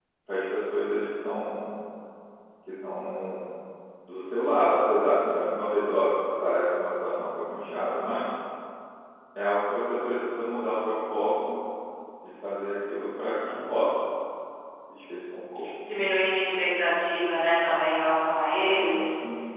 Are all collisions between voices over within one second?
Yes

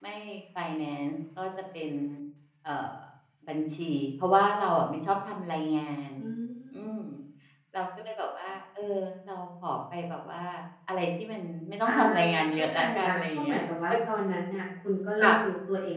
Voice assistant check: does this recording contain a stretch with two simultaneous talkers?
Yes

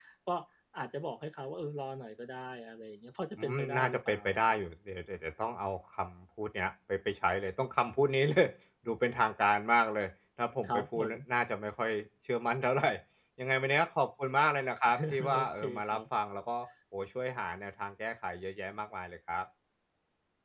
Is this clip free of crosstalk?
No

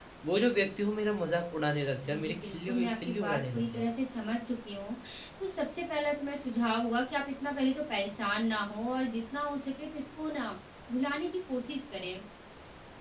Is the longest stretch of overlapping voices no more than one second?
No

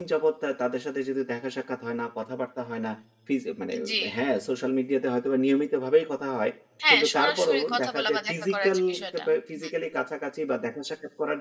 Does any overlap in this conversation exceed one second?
Yes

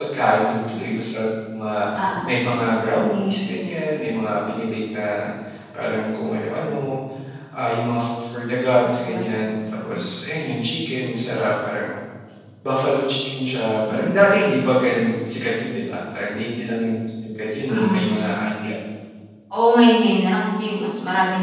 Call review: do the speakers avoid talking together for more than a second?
Yes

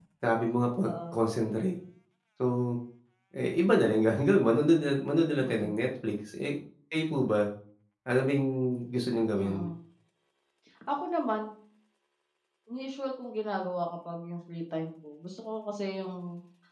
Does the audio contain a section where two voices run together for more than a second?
No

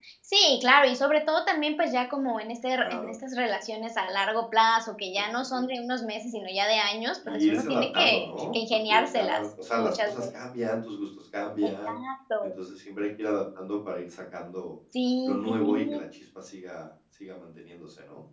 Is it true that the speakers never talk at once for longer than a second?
No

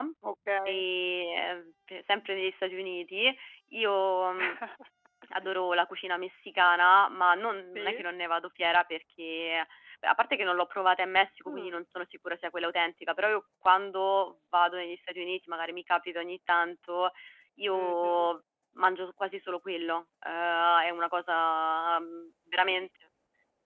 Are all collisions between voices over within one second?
Yes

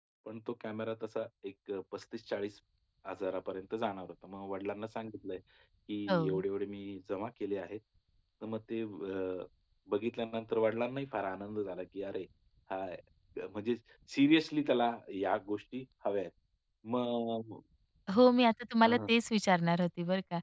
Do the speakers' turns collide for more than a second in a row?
No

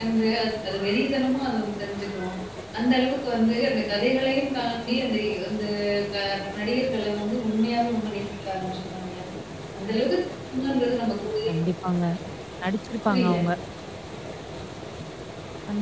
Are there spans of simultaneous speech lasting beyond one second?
No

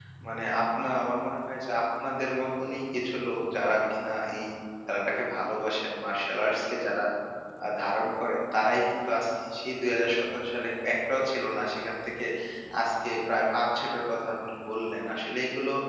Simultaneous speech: No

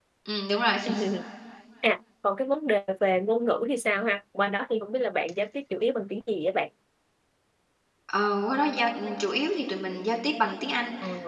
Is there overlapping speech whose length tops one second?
No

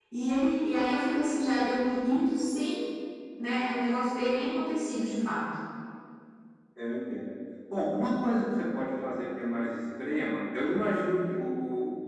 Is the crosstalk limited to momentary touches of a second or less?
Yes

